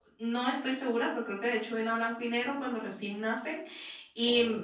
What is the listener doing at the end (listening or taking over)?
listening